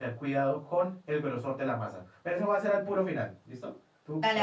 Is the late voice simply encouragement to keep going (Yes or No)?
Yes